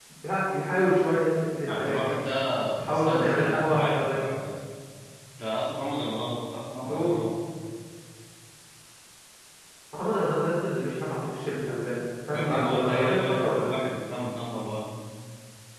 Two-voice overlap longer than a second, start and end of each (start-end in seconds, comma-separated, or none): 2.9-4.2, 12.3-13.7